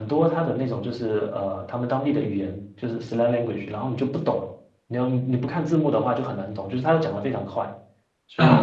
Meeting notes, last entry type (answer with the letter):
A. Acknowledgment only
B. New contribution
B